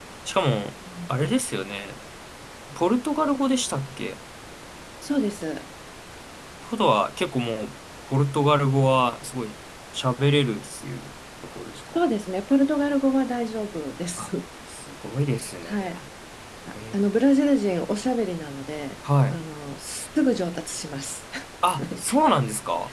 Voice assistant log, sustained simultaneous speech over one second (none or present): none